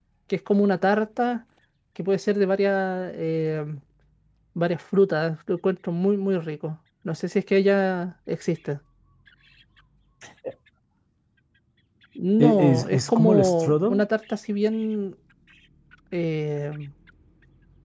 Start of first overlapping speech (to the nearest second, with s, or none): 12 s